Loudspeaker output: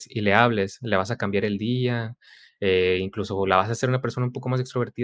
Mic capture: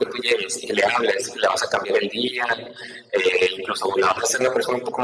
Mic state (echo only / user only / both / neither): echo only